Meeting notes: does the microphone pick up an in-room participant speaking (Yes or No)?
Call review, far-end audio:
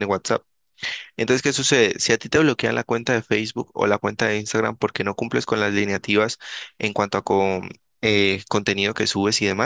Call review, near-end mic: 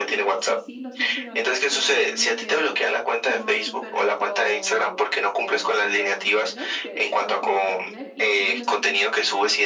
Yes